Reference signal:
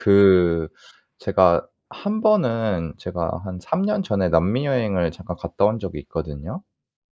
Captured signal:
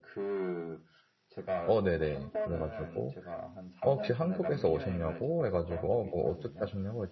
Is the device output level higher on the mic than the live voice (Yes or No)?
No